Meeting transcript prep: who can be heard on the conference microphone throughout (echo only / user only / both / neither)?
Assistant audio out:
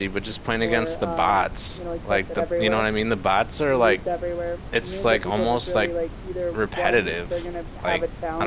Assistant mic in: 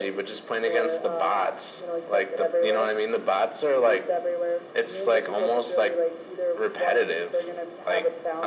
echo only